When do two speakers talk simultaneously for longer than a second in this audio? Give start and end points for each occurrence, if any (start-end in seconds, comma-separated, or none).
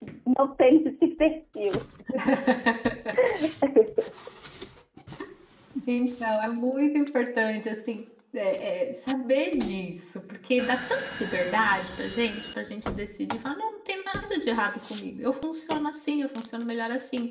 none